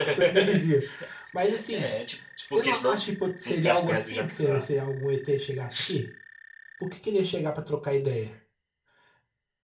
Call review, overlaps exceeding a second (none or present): present